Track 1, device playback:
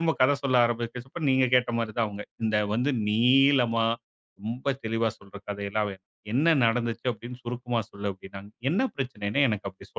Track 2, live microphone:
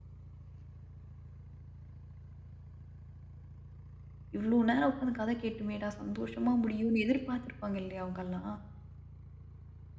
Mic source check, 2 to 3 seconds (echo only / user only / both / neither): neither